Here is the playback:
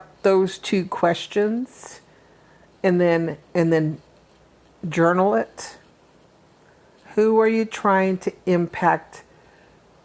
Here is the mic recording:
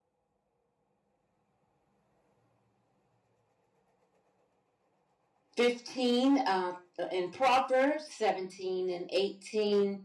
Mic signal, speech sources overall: user only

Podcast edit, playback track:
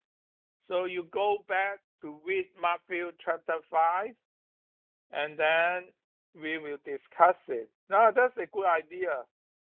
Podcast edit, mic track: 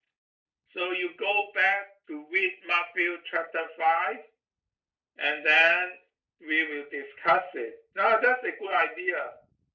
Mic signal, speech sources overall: echo only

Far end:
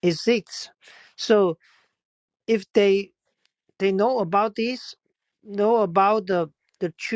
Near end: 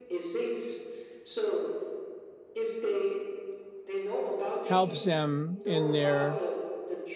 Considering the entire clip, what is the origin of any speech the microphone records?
both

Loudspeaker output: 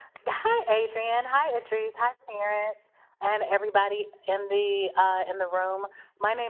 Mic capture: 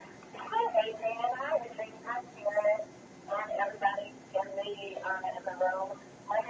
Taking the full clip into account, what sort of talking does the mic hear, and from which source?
echo only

